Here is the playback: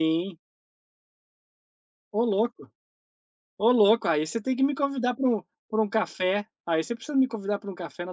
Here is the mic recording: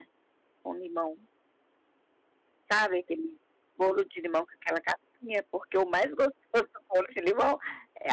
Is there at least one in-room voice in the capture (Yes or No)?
Yes